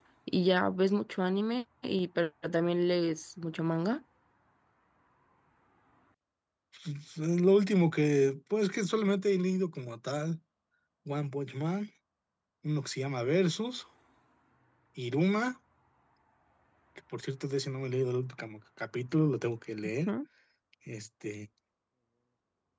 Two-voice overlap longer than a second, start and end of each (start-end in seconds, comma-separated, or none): none